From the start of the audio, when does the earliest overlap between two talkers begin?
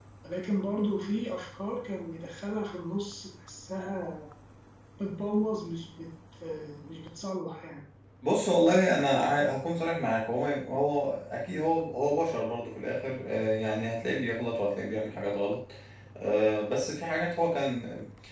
none

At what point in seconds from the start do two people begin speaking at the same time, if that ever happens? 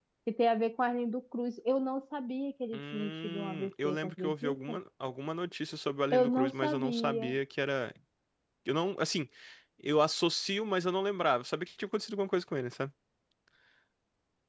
2.7 s

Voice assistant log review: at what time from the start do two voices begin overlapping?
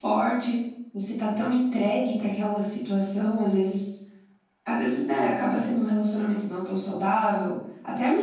none

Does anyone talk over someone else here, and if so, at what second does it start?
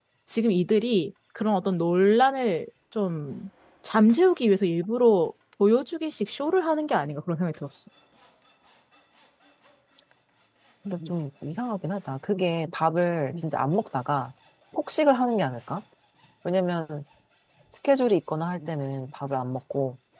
none

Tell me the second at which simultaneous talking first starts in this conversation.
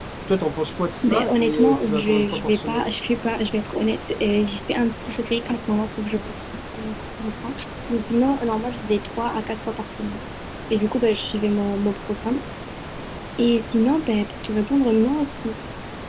1.0 s

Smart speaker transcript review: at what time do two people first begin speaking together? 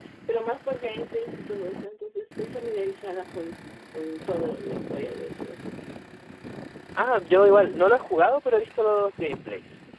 none

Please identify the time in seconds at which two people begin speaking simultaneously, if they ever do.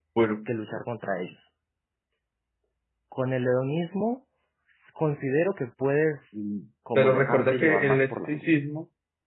7.0 s

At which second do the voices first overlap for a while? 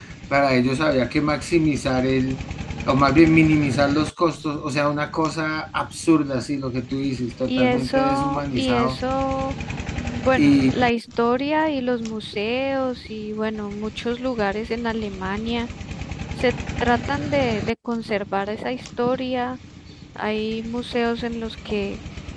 7.5 s

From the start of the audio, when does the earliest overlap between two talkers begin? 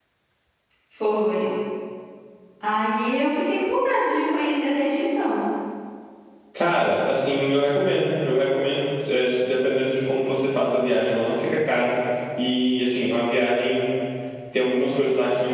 none

